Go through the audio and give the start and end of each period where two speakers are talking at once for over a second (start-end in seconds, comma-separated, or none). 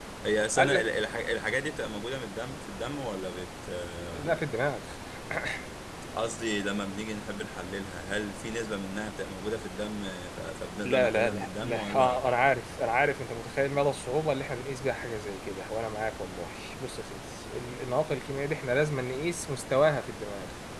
10.8-12.2